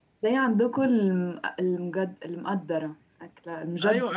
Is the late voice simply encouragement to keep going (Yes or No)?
No